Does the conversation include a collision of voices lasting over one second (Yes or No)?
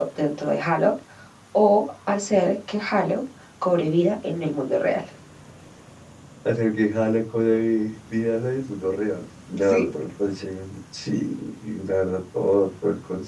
No